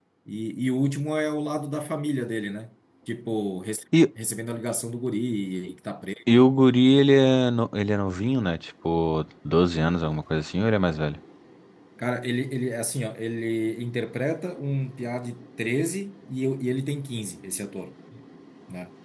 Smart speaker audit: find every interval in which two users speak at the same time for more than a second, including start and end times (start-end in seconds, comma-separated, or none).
none